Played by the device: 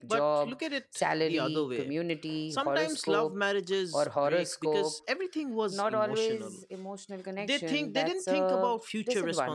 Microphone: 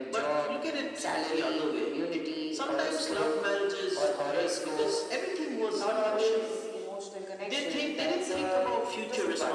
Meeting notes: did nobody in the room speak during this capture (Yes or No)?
Yes